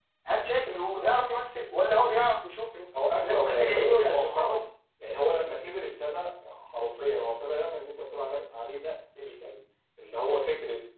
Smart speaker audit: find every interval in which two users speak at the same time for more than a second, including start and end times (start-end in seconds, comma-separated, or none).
3.1-4.6